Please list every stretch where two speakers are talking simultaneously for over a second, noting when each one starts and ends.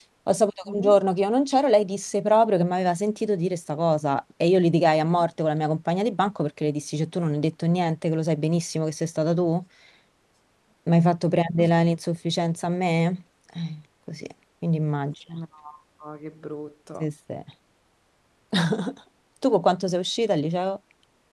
none

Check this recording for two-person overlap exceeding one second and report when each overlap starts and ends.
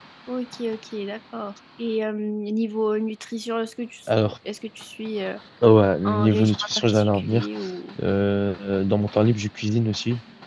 6.0-7.5

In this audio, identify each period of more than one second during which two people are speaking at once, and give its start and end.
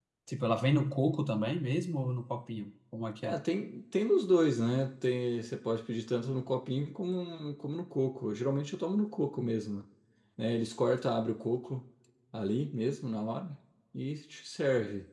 none

